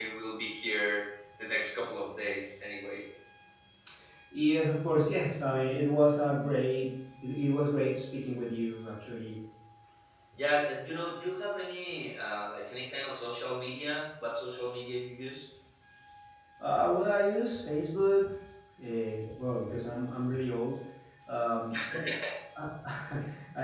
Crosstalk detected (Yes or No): No